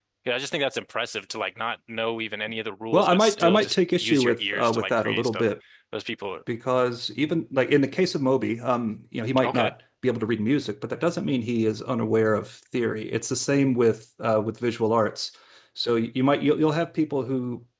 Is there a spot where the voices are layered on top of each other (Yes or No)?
Yes